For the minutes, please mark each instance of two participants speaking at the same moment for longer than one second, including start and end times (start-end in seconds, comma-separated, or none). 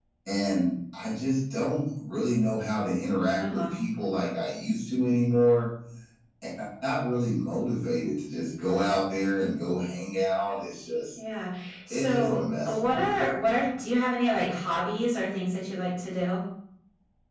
11.9-13.2